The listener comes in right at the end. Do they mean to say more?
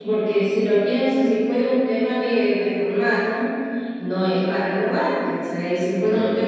No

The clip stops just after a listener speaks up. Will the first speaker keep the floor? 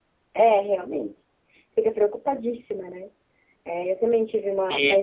No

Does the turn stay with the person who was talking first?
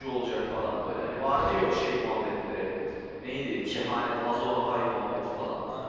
No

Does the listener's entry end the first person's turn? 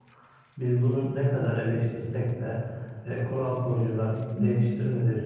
No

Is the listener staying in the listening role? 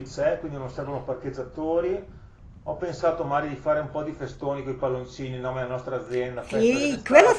No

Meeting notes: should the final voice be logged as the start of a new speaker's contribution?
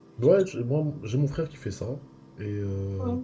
No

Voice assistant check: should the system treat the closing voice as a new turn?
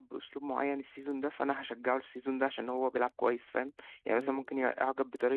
No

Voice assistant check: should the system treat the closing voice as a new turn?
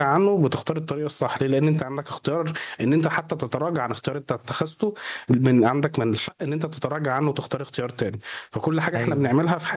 No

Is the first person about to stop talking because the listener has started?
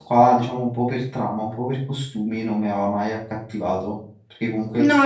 Yes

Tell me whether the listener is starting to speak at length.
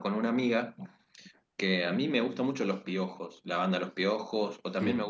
No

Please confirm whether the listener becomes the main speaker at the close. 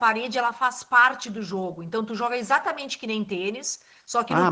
Yes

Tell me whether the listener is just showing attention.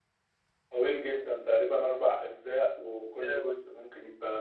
Yes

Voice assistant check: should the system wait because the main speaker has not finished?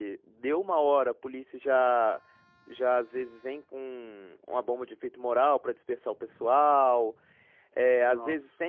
Yes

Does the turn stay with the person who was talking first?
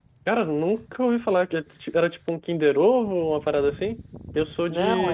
Yes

